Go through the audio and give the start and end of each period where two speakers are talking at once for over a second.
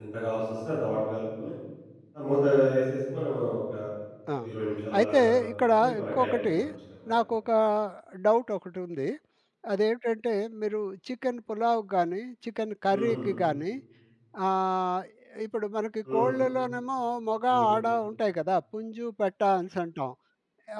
5.0-6.5

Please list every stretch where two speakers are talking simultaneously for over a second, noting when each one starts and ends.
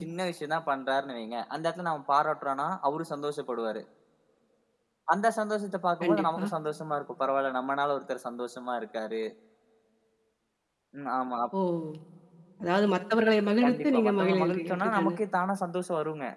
13.6-15.2

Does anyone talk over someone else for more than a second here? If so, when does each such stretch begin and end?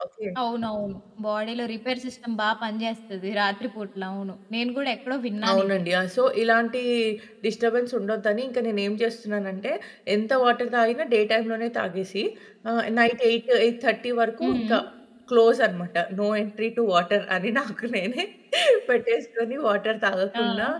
none

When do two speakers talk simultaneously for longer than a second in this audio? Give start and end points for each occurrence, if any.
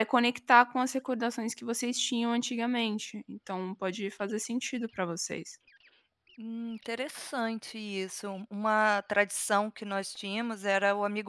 none

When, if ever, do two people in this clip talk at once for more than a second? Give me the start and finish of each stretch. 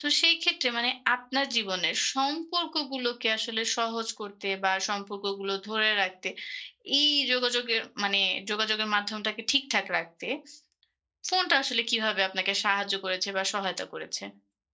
none

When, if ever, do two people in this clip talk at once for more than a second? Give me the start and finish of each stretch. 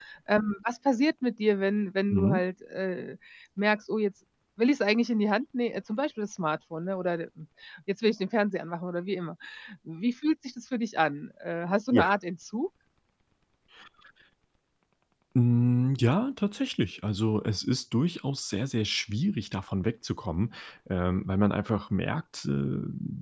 none

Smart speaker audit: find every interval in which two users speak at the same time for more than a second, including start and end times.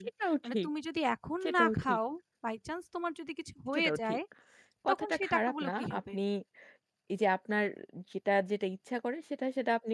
4.9-6.1

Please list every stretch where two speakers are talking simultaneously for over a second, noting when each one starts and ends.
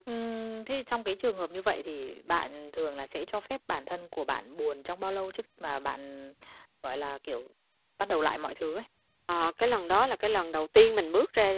none

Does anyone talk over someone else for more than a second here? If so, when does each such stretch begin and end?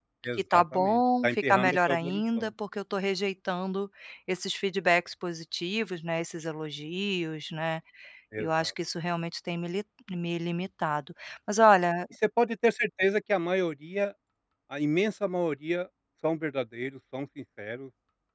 0.5-2.5

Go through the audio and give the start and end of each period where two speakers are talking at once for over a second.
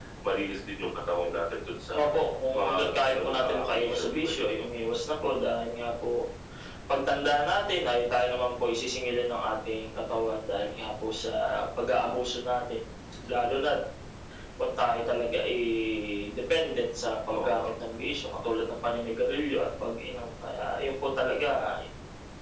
2.5-4.3

